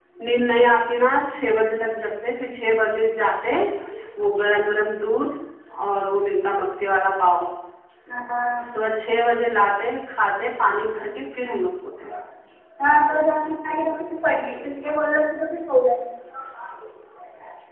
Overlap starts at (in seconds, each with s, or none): none